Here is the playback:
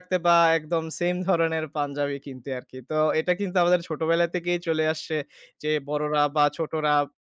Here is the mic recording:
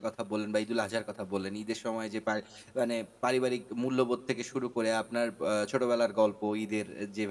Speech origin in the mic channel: user only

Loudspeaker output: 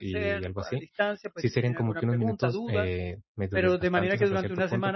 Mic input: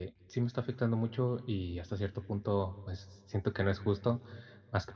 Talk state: user only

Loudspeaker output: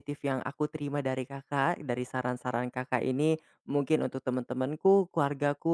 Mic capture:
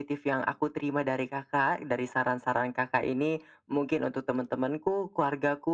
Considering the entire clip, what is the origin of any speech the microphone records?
echo only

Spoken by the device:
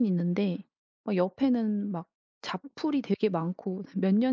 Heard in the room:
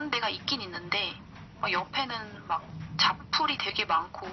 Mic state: echo only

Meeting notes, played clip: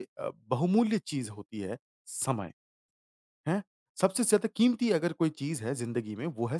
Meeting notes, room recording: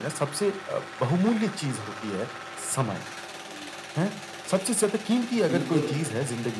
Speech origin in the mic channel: both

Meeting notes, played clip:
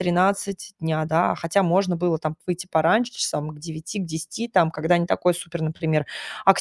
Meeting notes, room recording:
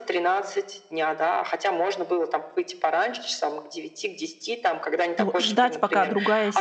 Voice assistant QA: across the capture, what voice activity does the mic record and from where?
both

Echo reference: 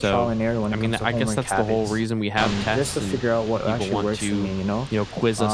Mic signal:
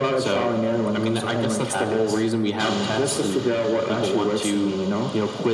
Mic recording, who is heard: echo only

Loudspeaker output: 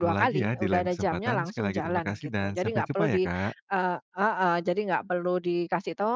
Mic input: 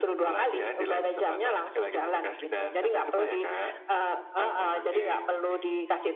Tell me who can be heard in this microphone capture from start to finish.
both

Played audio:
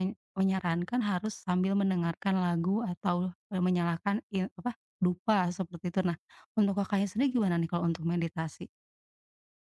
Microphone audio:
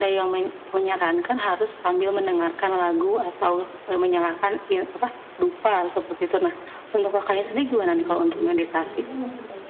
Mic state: both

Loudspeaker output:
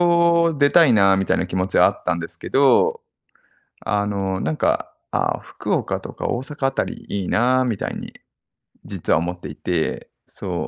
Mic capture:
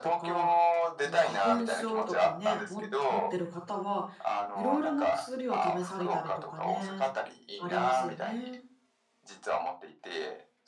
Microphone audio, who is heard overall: both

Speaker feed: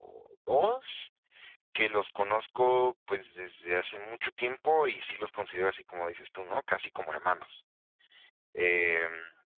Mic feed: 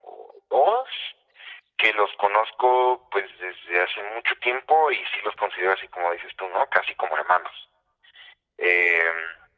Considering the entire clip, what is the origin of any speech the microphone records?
echo only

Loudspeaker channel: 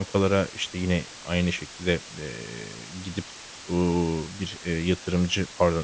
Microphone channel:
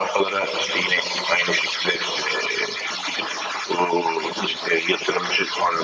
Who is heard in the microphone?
echo only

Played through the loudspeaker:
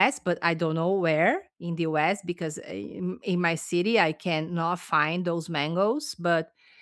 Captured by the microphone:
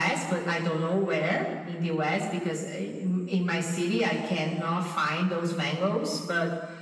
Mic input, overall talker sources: echo only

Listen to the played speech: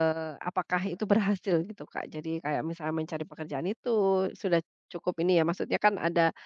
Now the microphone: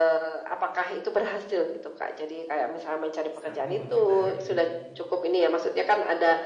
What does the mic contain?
both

